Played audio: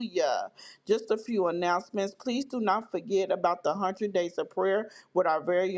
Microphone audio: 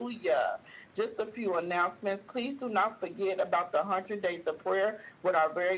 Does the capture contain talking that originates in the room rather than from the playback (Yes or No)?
No